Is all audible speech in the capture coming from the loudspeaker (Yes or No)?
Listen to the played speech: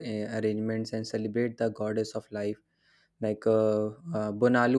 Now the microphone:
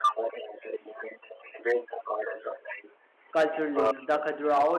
No